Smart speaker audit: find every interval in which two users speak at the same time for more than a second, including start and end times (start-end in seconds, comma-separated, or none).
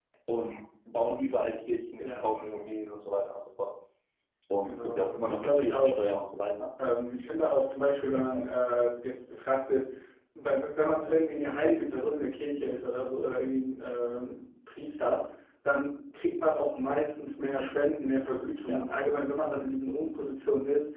4.6-6.0